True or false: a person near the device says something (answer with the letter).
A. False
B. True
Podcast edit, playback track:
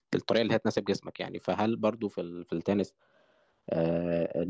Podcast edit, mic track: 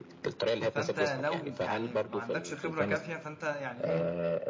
B